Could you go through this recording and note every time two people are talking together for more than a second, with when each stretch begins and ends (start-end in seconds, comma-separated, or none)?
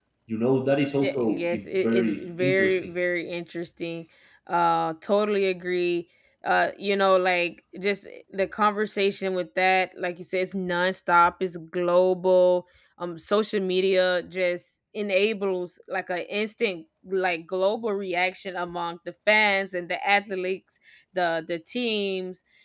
1.0-2.9